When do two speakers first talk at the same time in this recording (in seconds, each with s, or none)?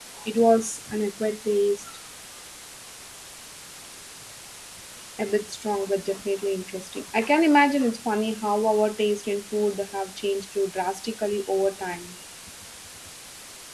none